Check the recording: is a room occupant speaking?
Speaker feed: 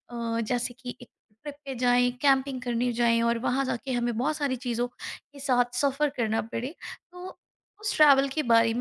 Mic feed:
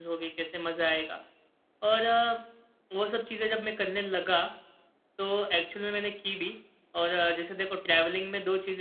Yes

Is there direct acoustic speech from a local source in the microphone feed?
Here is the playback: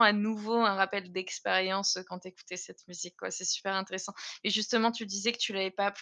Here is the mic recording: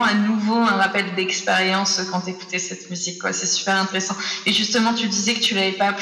No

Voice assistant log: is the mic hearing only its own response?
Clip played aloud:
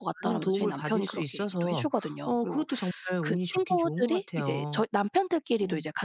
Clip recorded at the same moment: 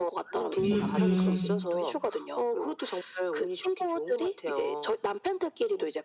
No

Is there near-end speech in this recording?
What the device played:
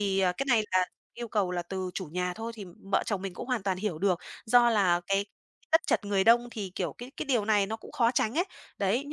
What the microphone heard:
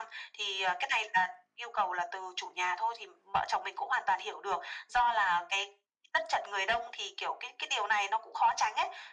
No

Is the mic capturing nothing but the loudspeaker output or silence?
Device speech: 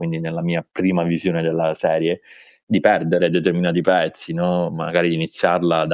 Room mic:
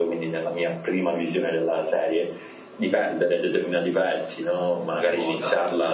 No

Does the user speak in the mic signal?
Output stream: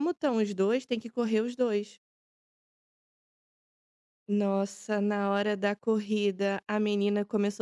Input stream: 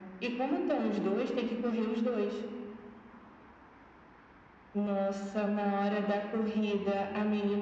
No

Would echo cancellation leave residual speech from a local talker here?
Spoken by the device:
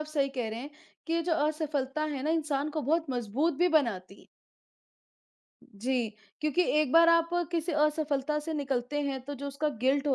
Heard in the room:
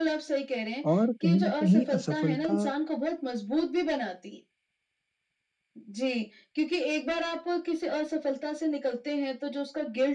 Yes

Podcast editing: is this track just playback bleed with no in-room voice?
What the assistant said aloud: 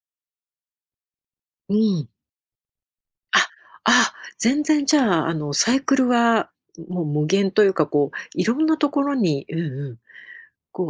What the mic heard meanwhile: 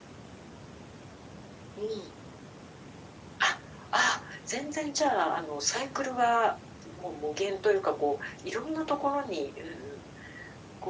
Yes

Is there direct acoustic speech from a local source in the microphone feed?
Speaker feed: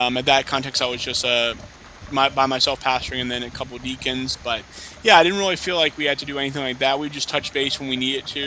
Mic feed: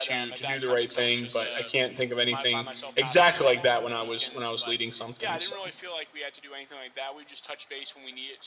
Yes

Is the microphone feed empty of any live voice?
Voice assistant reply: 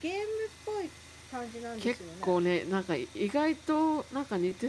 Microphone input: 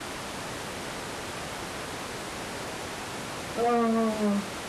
No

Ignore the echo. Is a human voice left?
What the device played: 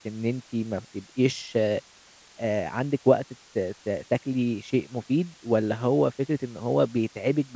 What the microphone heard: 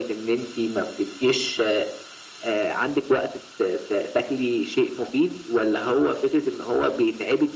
No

